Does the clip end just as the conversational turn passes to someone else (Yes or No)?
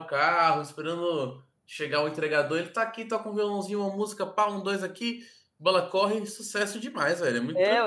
Yes